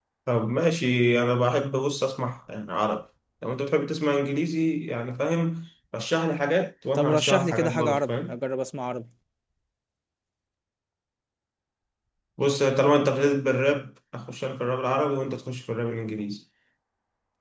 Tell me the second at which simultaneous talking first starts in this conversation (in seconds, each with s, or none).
7.0 s